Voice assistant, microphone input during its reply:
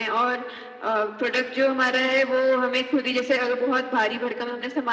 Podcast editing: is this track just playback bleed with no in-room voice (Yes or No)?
Yes